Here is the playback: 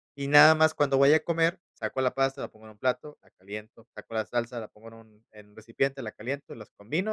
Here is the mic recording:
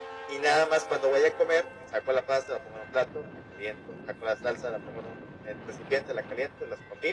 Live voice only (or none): none